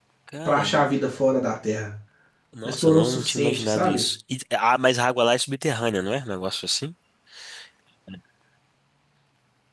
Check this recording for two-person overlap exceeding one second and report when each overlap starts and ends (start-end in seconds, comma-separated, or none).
2.6-4.0